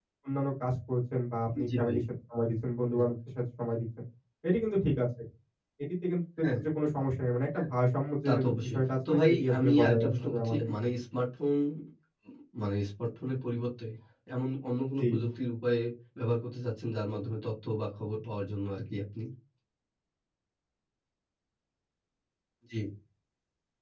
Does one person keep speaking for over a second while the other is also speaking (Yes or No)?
Yes